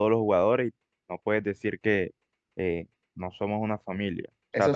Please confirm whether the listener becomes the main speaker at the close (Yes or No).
Yes